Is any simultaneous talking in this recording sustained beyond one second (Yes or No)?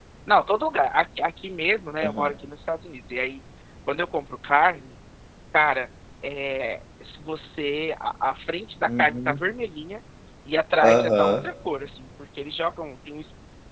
No